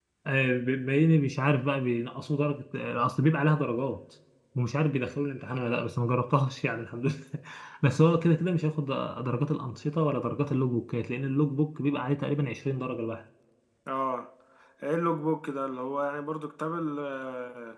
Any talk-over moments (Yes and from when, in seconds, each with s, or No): No